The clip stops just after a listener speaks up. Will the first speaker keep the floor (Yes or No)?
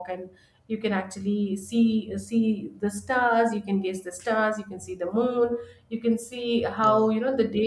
Yes